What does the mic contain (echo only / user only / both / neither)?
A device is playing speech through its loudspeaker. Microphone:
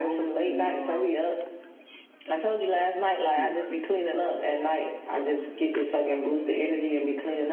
both